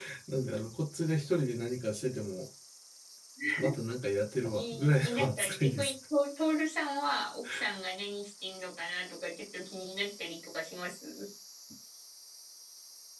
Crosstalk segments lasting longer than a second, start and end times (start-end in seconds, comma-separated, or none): 4.5-5.9